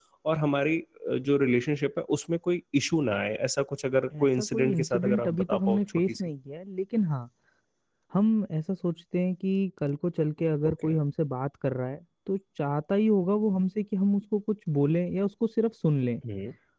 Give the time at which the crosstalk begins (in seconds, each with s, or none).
4.1 s